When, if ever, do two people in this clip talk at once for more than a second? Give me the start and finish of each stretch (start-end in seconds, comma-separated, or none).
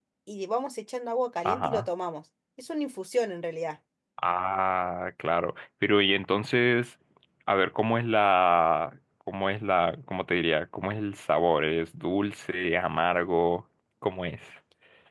none